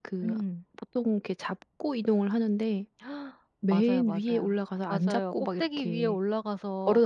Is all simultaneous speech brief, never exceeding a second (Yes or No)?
No